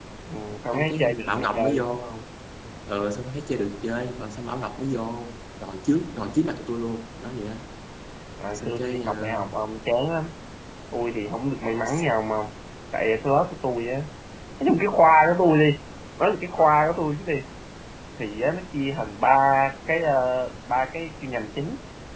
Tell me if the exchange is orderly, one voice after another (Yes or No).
No